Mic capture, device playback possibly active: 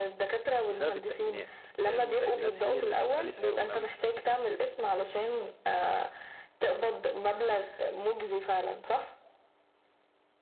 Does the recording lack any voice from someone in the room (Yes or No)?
No